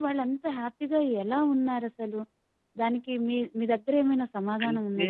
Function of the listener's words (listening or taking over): taking over